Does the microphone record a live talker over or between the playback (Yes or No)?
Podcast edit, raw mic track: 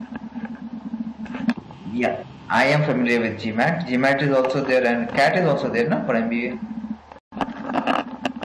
Yes